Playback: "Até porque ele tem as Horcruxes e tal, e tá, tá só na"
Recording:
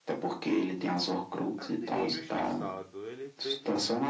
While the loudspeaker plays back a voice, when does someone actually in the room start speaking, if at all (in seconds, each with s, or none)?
1.6 s